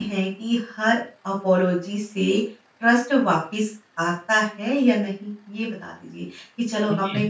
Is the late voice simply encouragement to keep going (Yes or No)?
Yes